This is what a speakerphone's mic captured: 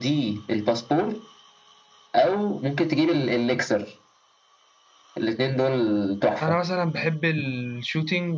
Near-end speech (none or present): present